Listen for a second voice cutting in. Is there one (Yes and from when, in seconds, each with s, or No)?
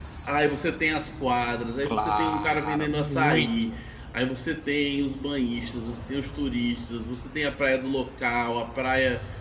Yes, from 1.8 s